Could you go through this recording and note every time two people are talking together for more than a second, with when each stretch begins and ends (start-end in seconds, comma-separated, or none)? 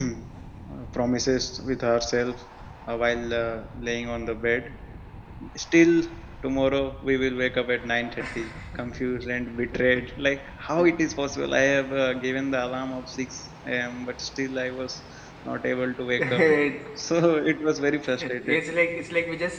none